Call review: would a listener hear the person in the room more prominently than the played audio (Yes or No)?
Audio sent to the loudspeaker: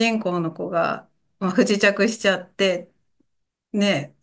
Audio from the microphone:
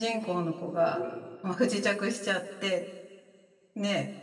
No